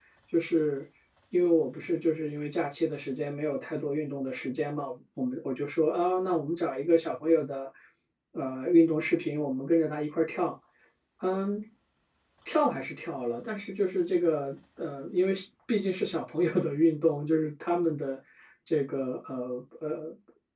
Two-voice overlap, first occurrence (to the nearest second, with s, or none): none